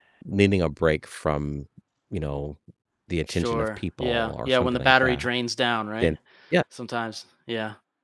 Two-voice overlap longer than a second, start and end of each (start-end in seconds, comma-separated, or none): 3.3-5.3